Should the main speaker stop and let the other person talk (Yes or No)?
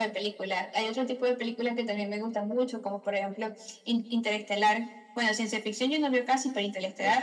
Yes